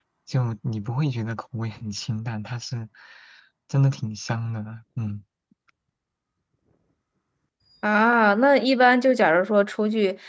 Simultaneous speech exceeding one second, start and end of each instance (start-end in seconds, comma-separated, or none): none